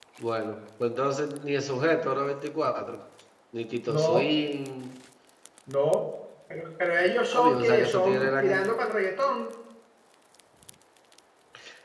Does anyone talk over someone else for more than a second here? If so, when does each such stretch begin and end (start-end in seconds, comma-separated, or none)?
7.3-8.7